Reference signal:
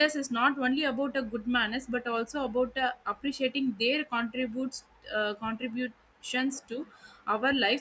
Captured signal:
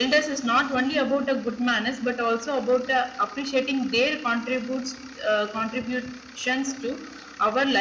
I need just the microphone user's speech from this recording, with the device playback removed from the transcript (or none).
none